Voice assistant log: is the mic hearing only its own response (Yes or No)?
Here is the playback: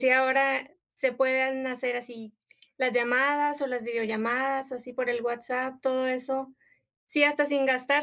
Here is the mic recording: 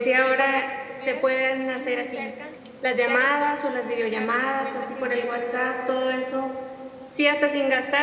No